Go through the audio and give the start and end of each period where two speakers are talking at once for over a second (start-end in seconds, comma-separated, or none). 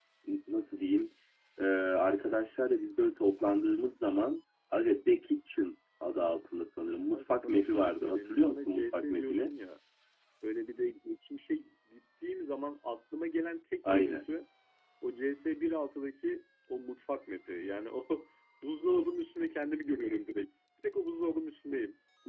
7.0-9.5